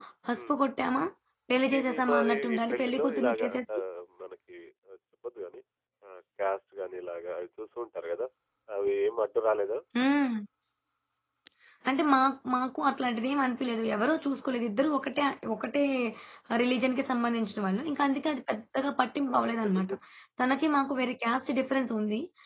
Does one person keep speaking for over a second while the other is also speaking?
Yes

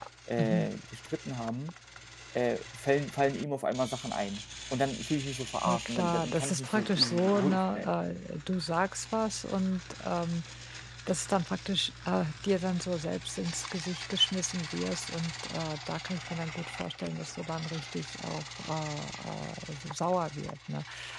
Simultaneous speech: Yes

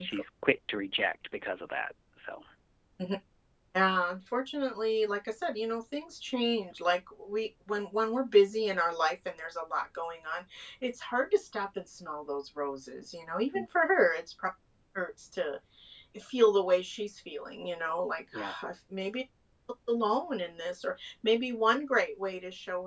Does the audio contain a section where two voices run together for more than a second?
No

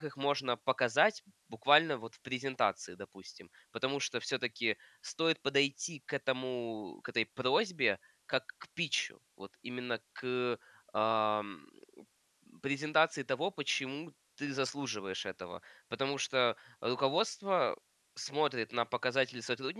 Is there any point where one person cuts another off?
No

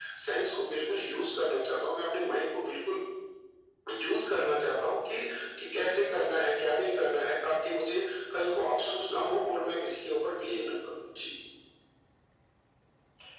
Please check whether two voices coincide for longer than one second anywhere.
No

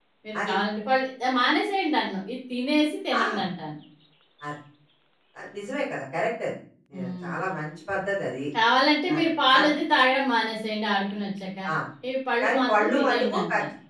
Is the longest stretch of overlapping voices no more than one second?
No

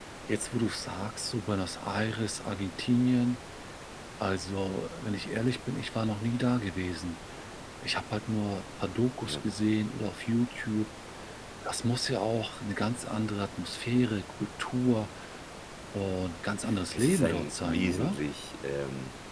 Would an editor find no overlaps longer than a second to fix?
No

